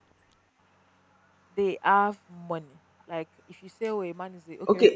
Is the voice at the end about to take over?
Yes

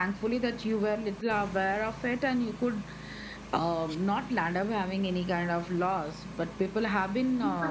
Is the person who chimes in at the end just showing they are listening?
Yes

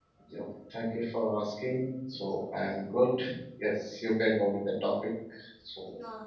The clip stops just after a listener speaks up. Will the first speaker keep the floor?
No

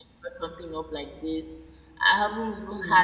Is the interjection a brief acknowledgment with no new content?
Yes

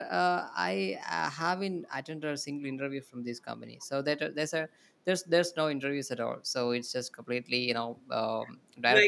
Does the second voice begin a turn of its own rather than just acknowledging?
Yes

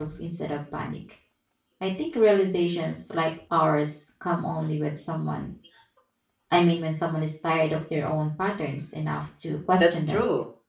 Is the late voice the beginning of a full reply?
Yes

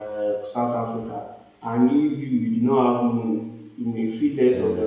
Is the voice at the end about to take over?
No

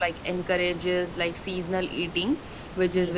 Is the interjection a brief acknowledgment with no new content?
Yes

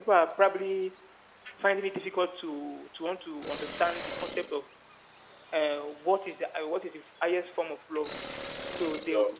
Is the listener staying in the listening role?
Yes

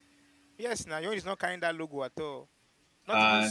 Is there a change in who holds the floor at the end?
Yes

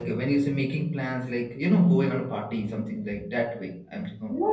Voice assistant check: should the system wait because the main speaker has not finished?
No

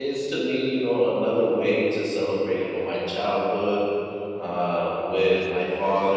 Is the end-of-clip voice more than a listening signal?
No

